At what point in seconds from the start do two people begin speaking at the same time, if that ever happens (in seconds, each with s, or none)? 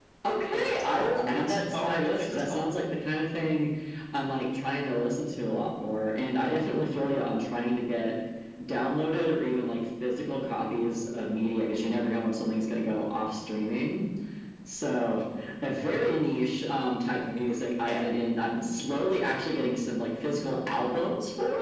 0.5 s